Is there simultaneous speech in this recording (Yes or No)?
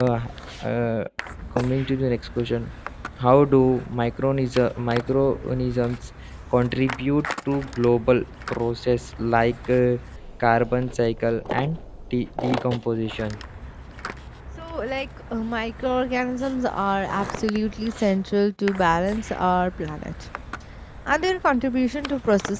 No